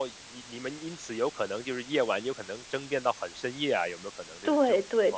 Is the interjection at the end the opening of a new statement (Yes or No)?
Yes